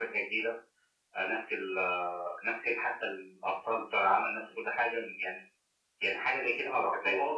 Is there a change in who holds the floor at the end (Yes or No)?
Yes